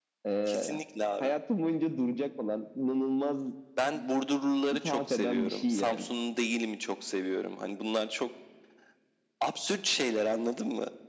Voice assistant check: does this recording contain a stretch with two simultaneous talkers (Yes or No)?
Yes